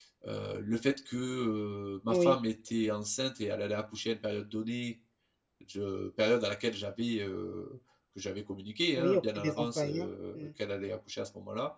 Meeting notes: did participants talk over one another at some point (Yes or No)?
Yes